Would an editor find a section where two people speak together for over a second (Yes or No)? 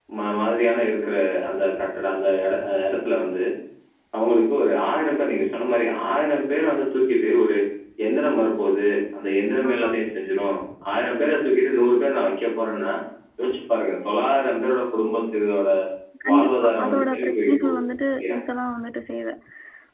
Yes